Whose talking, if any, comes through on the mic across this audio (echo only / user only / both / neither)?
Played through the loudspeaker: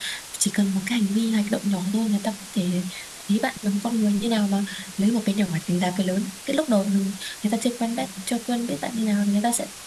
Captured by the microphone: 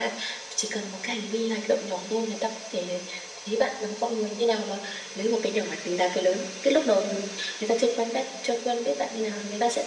echo only